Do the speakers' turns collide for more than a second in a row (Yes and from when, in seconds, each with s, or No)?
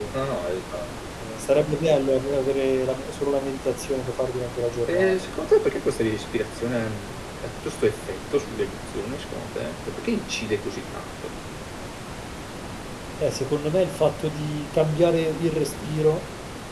No